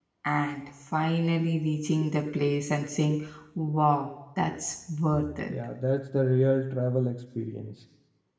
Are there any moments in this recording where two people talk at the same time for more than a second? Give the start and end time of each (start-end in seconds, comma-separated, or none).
none